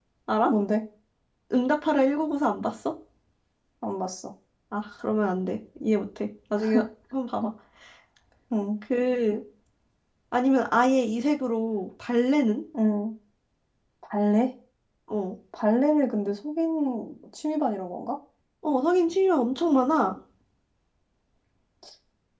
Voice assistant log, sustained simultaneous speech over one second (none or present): none